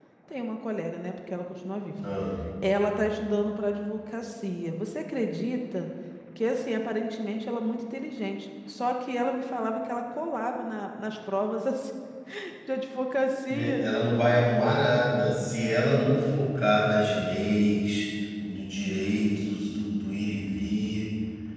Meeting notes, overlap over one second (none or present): none